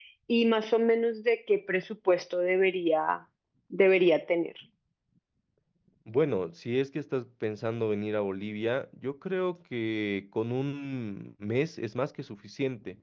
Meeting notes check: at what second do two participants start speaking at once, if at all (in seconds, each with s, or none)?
none